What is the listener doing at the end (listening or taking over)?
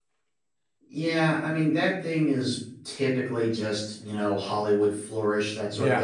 listening